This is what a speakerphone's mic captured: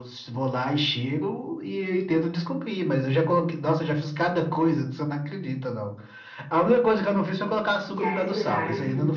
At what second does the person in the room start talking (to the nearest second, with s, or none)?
8 s